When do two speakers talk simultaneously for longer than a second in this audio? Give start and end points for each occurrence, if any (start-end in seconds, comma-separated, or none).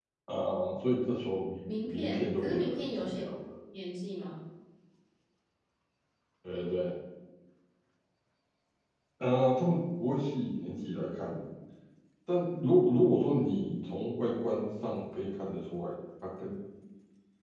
1.6-3.2